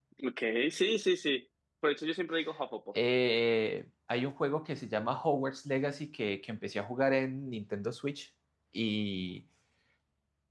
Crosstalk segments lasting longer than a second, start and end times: none

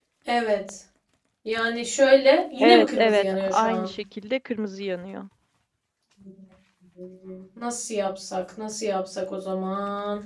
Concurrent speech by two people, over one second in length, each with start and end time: 2.6-3.9

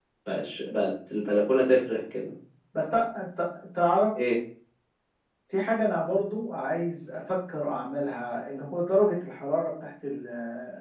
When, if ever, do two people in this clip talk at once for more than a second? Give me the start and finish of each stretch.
none

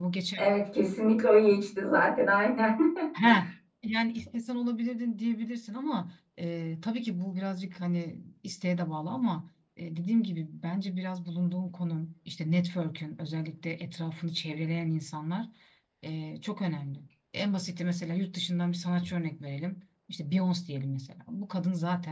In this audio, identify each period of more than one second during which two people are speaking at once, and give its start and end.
none

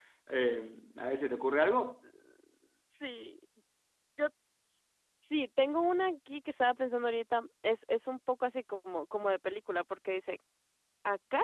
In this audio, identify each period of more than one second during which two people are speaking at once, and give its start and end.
none

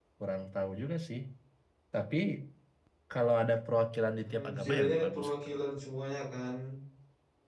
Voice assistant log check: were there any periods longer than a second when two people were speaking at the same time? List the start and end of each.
4.2-5.5

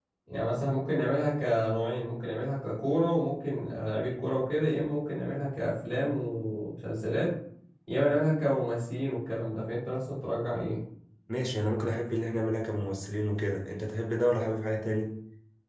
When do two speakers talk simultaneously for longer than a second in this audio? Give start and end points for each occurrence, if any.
none

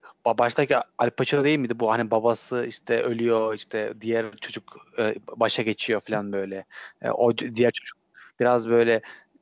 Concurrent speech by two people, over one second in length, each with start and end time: none

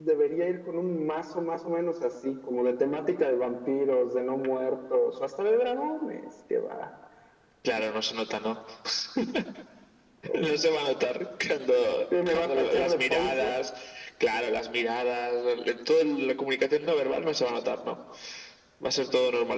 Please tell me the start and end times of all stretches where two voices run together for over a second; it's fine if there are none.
12.3-13.6

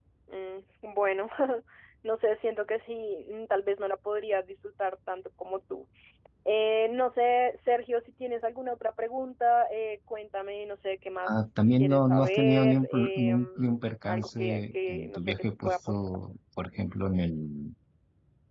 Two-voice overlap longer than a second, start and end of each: 11.8-16.0

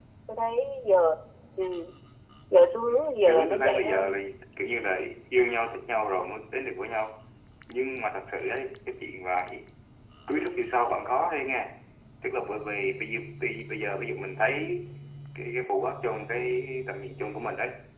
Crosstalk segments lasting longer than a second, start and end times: 2.9-4.2

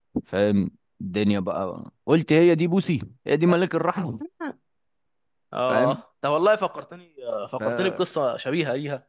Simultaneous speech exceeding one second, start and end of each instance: none

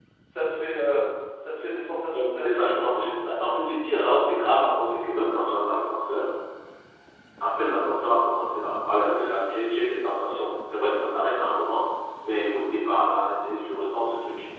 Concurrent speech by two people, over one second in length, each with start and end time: none

